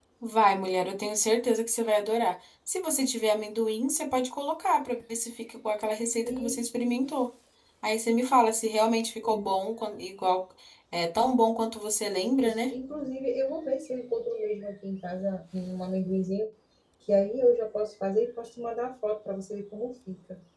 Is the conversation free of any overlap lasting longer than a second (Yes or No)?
Yes